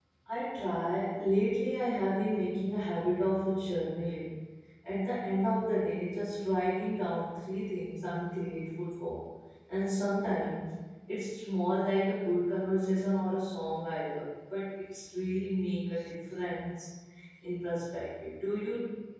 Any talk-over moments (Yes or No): No